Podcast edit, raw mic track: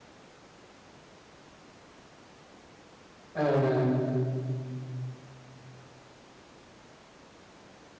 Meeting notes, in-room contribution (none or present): present